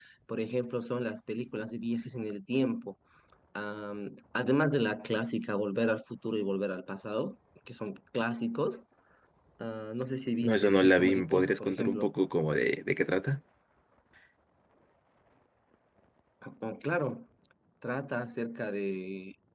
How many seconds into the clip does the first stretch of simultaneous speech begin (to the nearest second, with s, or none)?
10 s